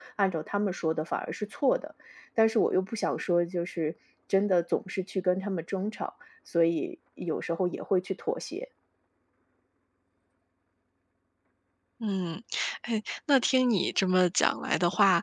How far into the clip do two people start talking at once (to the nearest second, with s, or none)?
none